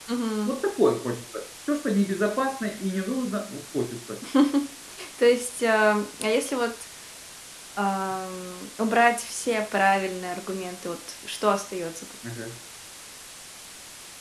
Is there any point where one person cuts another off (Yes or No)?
No